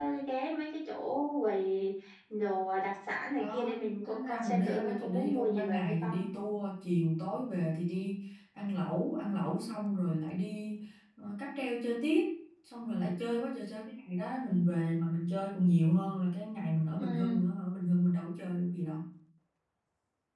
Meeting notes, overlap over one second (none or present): present